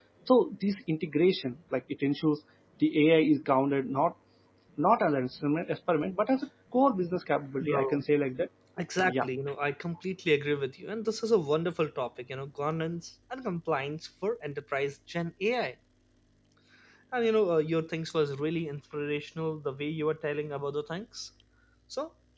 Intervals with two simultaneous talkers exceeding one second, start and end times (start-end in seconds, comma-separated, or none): none